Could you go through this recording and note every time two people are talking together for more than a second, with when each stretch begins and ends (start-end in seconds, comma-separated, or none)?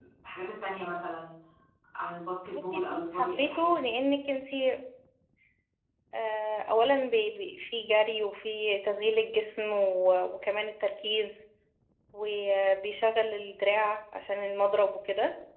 2.5-3.9